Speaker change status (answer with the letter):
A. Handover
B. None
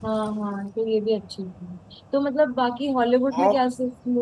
B